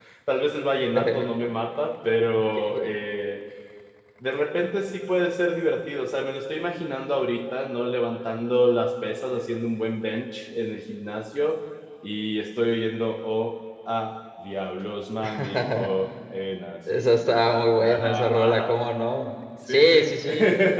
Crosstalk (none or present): present